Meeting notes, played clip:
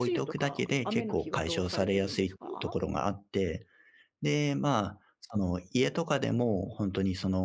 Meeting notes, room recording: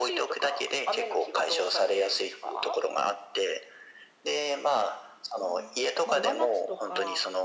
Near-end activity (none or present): present